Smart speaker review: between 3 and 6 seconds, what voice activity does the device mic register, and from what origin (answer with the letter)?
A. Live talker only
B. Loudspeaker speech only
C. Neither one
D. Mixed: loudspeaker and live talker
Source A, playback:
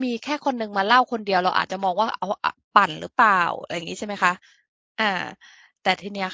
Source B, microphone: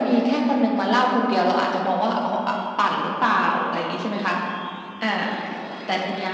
B